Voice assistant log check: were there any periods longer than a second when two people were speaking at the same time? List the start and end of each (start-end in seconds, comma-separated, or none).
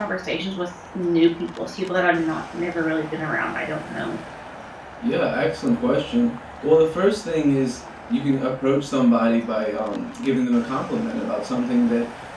none